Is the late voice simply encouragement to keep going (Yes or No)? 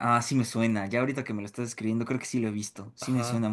No